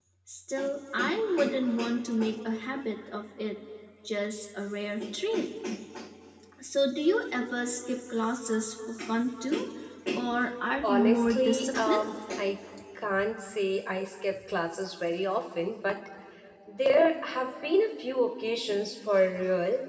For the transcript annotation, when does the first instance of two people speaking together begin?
10.8 s

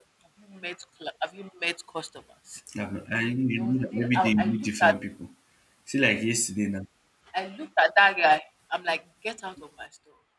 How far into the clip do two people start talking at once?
3.6 s

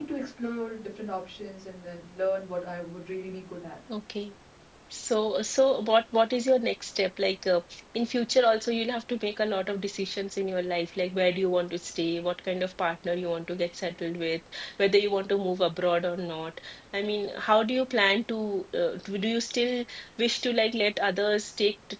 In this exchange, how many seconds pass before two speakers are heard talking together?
none

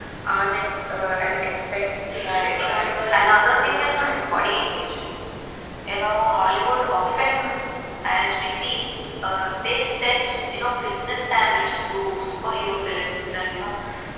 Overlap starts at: 2.1 s

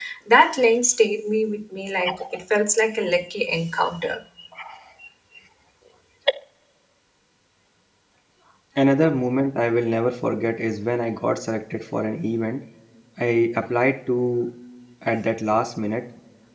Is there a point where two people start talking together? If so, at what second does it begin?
none

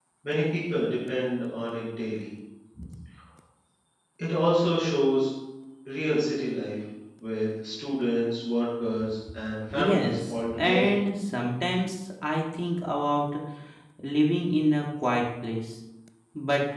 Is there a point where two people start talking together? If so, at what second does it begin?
9.7 s

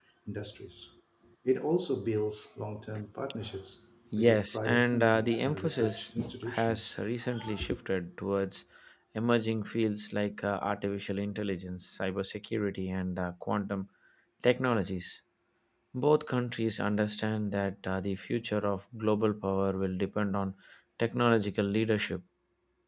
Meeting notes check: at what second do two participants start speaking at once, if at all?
4.1 s

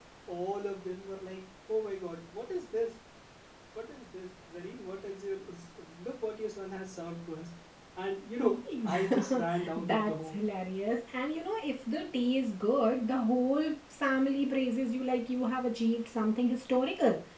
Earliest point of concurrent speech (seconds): 8.8 s

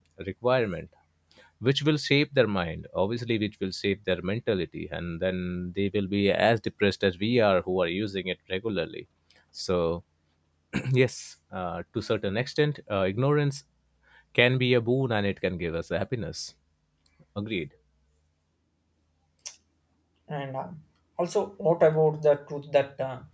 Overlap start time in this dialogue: none

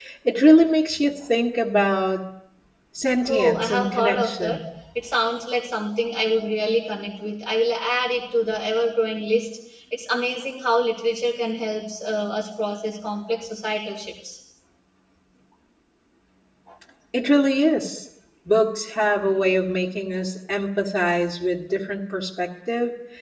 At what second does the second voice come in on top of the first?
3.3 s

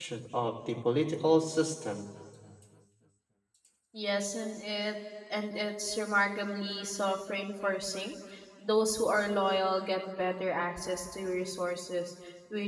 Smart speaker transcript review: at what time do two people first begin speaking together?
none

